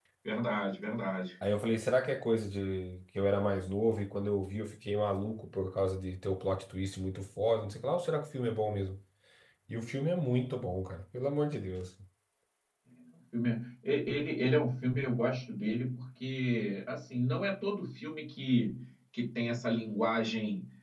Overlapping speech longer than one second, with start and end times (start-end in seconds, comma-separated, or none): none